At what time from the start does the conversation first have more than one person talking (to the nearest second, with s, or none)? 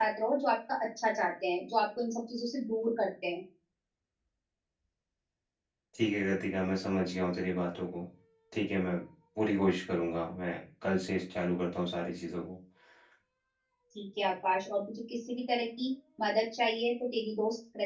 none